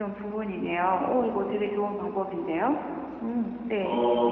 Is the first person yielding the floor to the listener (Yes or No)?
Yes